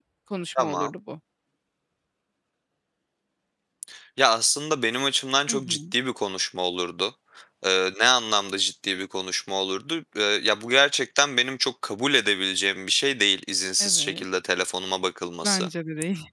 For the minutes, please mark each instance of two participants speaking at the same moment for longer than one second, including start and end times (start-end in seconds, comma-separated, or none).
none